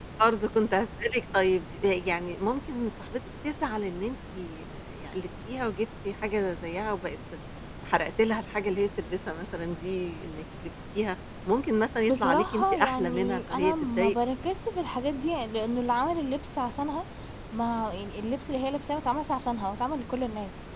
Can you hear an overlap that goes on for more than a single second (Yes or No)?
Yes